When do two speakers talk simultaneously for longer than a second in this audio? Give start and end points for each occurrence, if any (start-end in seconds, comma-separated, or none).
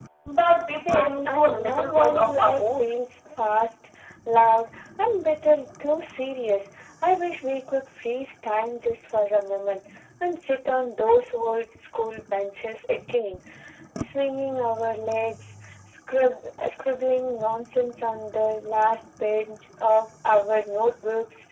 0.8-2.9